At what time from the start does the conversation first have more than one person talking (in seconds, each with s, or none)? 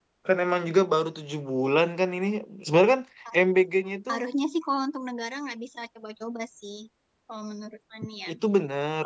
none